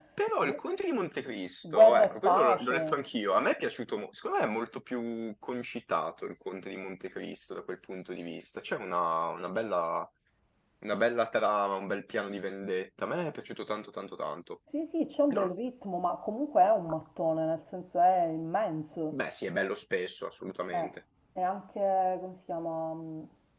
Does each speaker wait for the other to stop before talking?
No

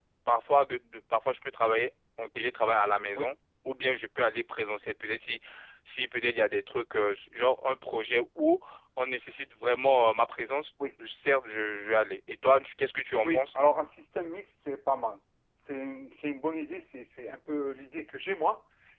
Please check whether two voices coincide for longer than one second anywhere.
No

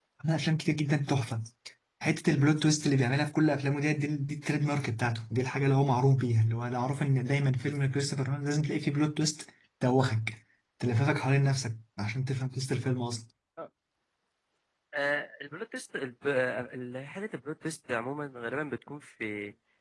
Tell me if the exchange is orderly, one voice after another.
Yes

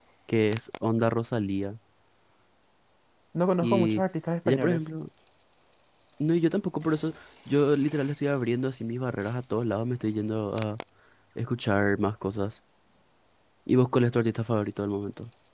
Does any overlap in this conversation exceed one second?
No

